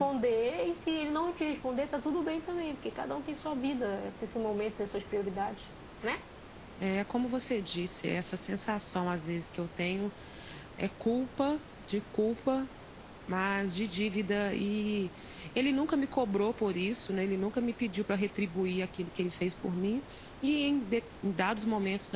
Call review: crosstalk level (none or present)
none